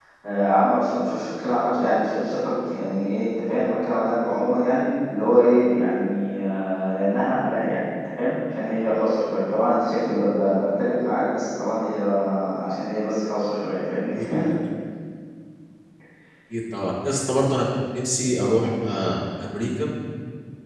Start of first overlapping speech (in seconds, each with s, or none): none